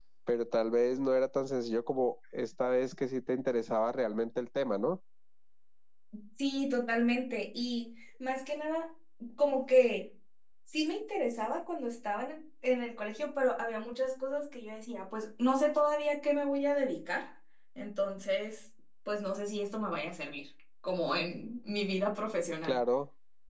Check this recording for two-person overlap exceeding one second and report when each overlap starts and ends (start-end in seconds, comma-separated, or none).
none